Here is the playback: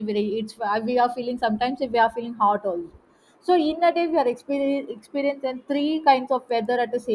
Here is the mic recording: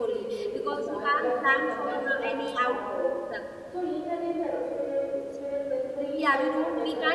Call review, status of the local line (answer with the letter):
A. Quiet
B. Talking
B